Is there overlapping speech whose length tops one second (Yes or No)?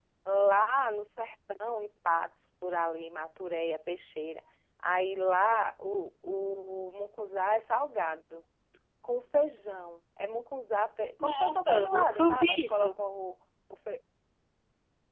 Yes